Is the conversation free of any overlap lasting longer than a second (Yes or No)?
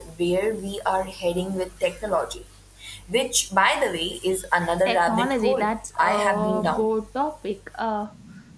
No